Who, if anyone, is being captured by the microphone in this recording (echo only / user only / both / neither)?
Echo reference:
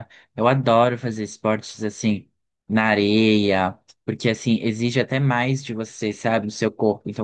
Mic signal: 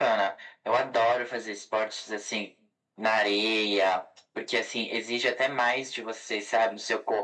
echo only